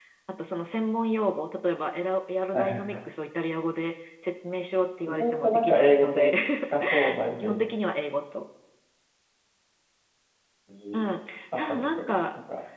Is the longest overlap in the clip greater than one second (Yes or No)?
Yes